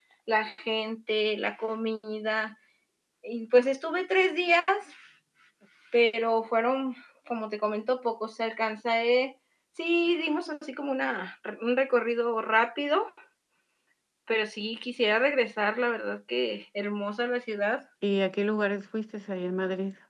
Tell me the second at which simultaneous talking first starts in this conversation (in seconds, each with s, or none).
none